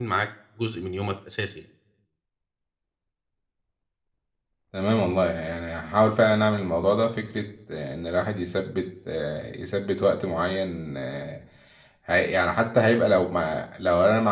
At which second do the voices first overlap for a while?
none

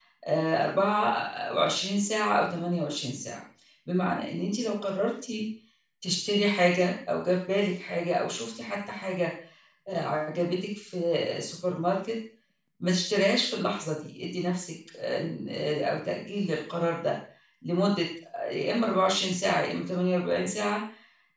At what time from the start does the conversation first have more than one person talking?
none

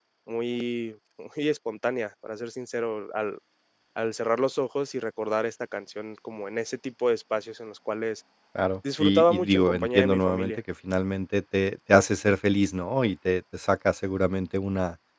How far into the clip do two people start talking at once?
9.0 s

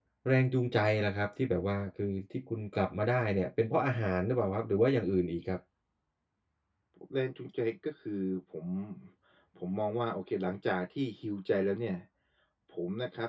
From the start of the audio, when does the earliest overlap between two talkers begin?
none

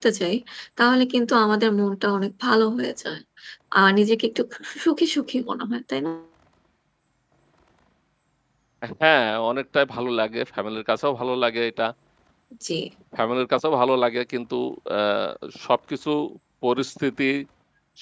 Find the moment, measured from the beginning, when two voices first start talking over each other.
none

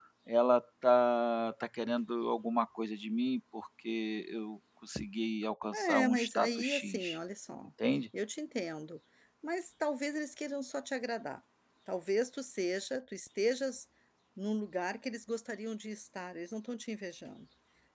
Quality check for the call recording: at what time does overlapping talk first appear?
5.7 s

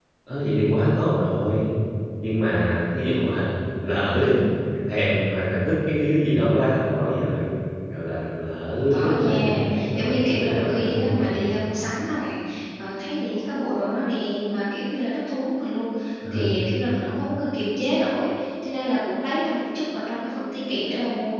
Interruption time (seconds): 8.9 s

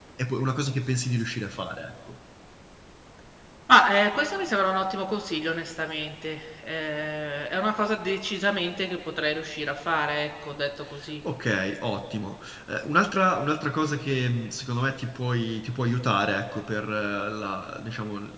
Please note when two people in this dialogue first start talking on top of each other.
none

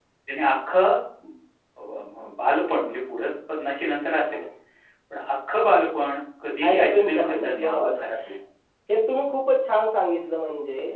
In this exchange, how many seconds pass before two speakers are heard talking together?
6.6 s

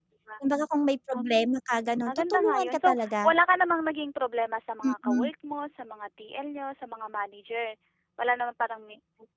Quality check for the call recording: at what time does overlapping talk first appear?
1.9 s

